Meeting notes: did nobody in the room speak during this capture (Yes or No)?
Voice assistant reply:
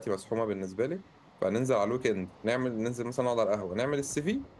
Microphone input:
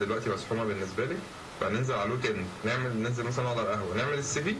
Yes